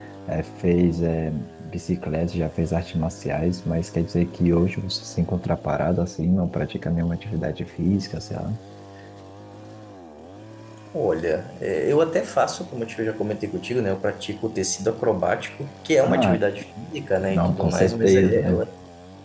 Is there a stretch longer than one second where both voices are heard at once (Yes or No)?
Yes